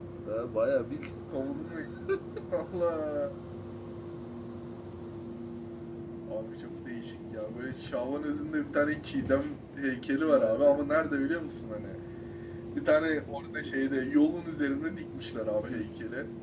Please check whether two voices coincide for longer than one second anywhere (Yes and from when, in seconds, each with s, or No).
No